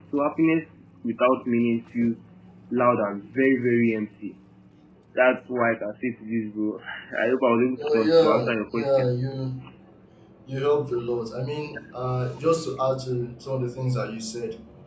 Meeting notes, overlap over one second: present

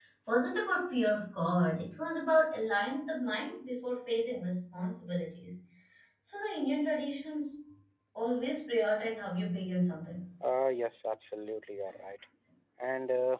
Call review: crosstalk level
none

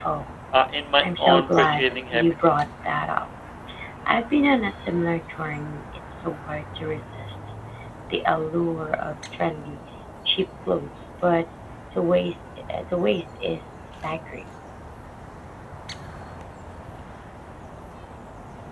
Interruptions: present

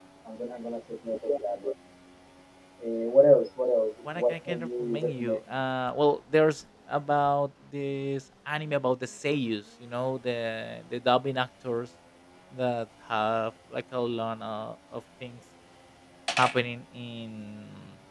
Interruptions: present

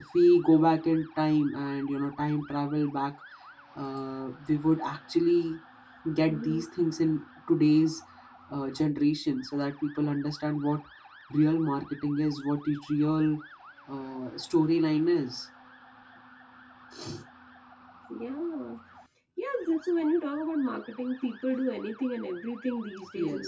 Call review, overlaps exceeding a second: none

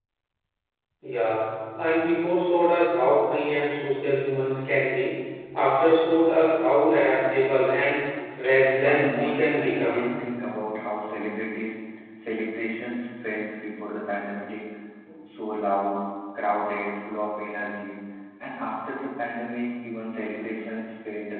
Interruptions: present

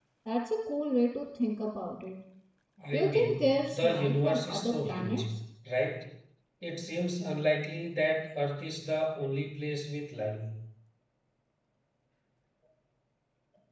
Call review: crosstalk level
present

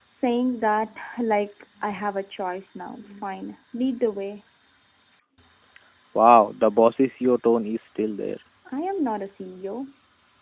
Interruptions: none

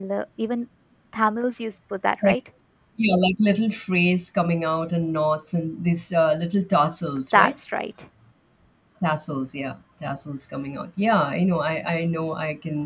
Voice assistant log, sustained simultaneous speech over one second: none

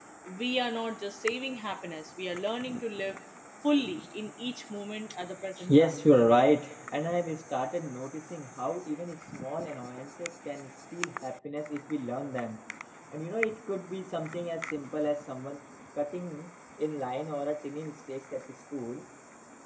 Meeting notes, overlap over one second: none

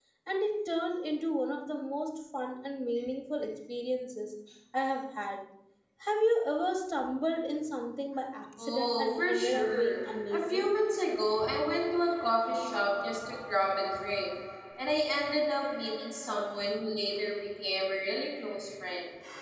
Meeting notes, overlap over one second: present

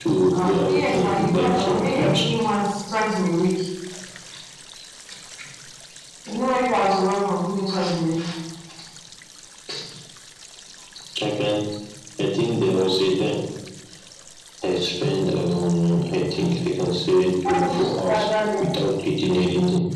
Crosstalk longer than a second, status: present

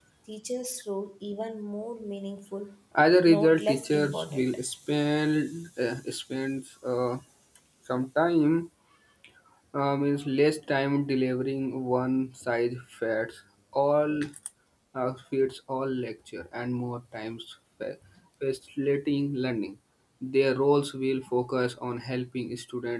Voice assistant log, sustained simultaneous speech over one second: present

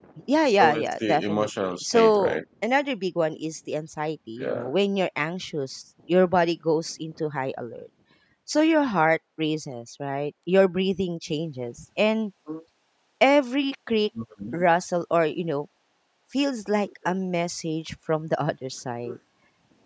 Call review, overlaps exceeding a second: present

